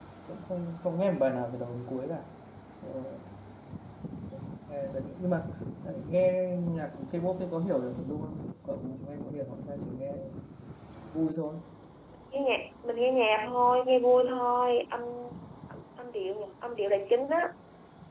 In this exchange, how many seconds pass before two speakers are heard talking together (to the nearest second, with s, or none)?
none